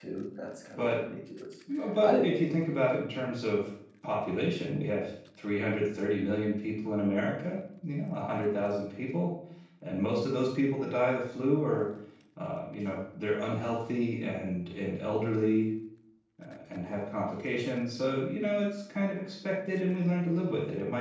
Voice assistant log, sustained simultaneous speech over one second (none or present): none